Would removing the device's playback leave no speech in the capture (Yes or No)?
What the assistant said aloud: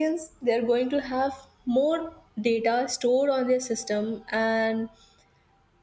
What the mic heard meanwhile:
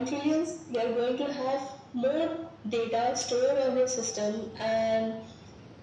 Yes